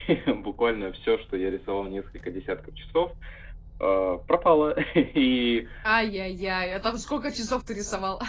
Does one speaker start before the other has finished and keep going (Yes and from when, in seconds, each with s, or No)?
No